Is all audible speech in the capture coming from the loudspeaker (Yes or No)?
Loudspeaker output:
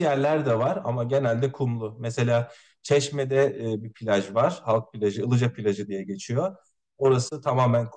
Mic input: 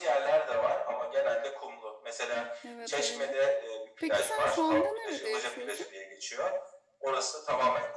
No